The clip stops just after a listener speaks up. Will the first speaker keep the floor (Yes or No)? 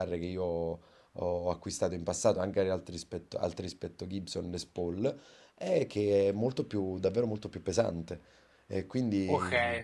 No